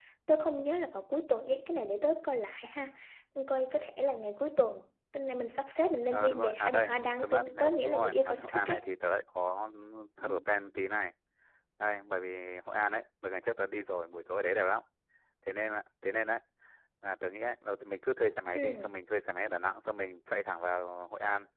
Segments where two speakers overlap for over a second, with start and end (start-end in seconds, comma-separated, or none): 6.1-8.8